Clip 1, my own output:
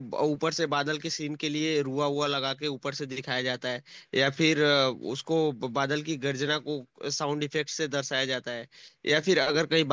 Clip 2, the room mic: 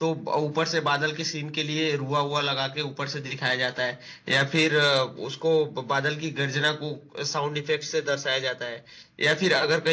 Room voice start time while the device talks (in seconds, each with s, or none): none